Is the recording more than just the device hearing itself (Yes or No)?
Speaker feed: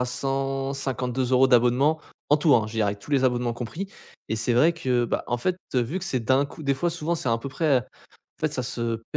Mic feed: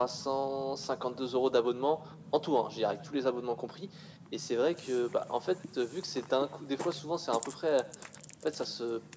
No